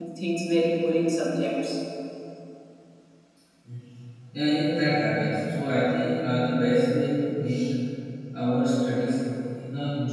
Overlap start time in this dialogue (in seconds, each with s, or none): none